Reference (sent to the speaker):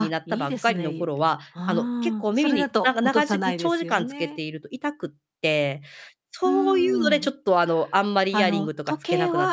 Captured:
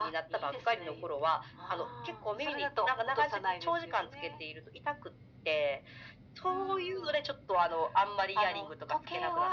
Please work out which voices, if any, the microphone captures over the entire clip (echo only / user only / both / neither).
echo only